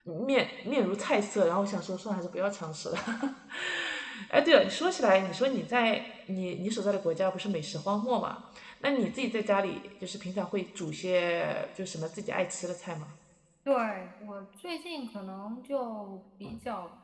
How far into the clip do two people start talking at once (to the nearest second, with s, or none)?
none